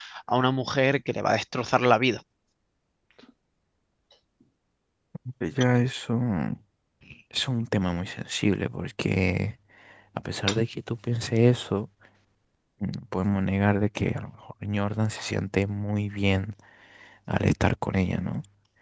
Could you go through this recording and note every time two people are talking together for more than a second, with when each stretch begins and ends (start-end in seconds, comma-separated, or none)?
none